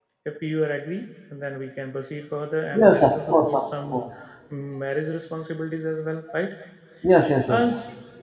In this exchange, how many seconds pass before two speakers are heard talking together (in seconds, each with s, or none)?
2.7 s